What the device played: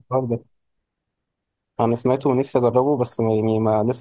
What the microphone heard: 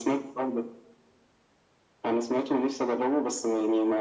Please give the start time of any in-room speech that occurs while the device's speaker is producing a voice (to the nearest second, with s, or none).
none